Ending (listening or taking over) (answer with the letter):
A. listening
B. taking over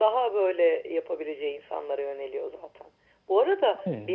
A